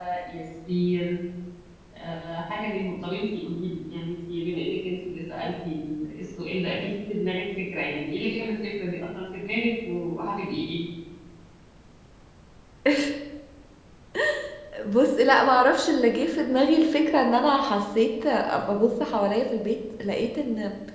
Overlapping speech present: No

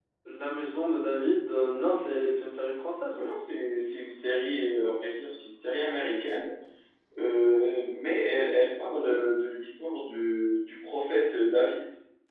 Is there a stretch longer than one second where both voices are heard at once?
No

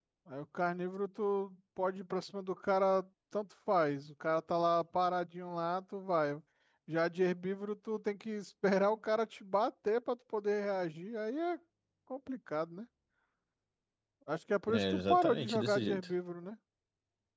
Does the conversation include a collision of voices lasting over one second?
Yes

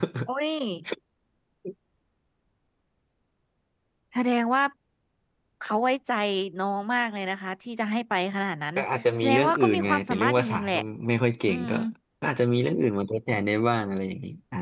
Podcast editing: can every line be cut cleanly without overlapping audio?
No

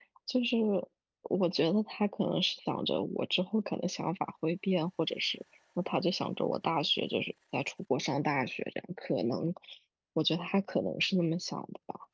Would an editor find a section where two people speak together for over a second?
No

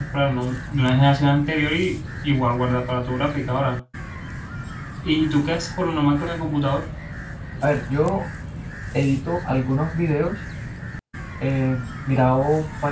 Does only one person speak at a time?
Yes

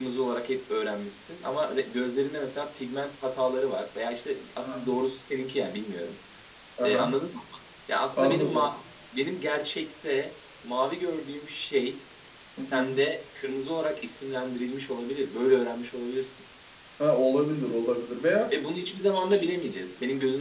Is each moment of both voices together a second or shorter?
Yes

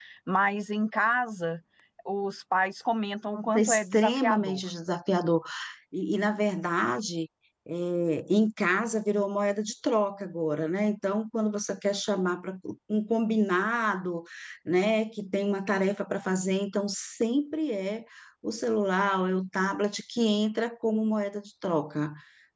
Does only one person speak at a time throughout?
No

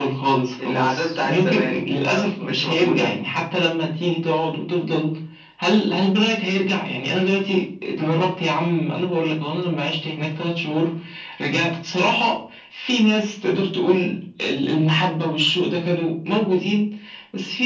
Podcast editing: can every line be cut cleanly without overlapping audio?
No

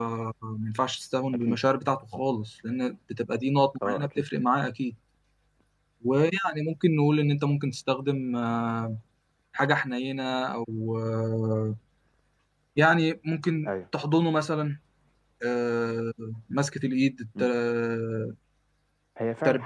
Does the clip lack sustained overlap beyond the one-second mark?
Yes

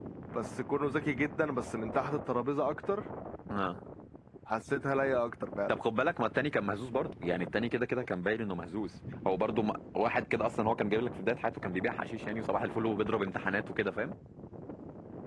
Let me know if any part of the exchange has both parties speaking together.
No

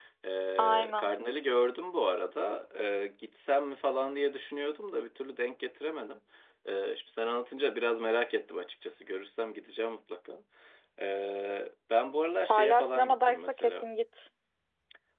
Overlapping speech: Yes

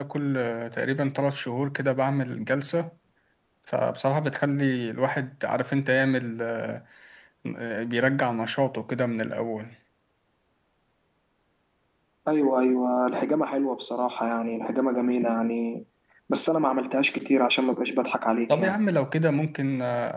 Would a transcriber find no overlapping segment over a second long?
Yes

